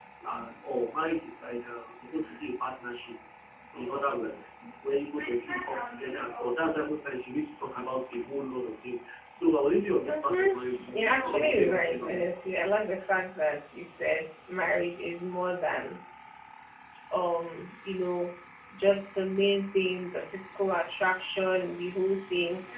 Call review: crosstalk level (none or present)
present